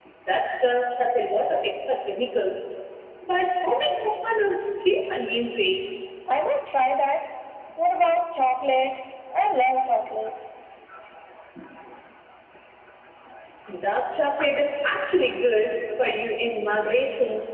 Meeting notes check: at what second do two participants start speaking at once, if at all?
none

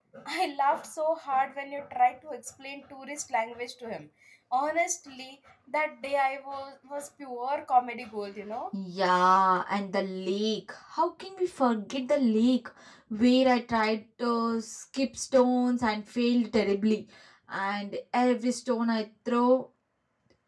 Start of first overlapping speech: none

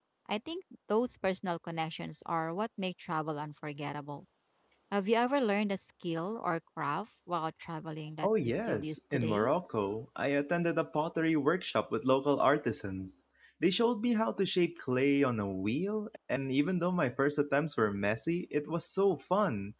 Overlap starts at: 8.2 s

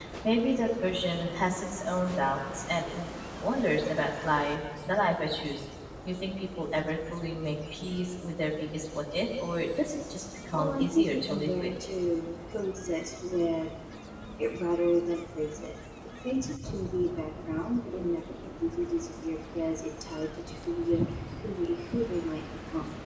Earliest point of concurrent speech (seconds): 10.5 s

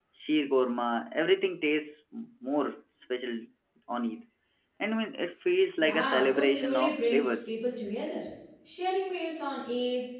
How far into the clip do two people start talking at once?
5.8 s

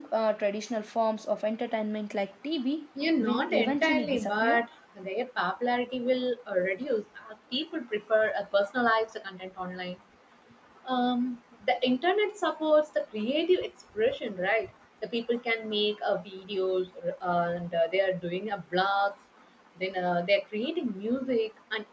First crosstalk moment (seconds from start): 3.0 s

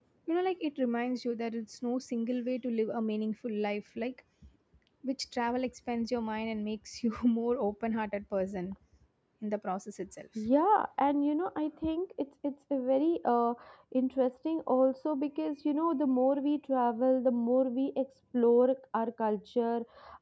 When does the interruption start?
none

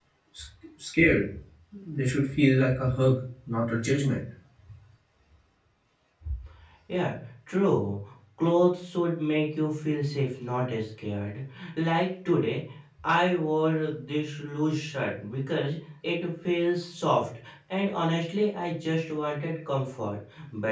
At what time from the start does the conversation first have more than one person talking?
none

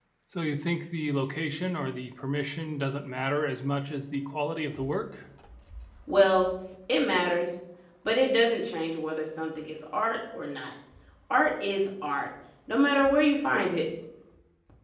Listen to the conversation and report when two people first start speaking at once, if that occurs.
none

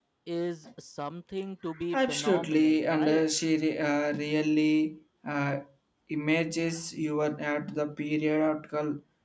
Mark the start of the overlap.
1.9 s

